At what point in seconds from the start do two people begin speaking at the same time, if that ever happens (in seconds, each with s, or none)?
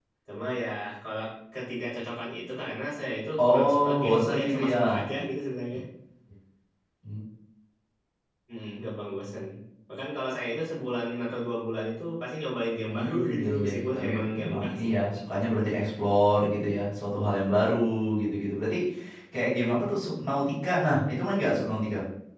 3.4 s